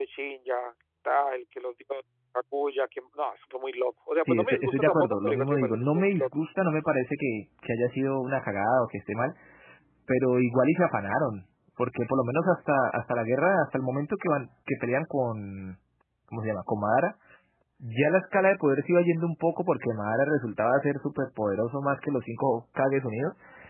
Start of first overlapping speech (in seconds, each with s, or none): 4.3 s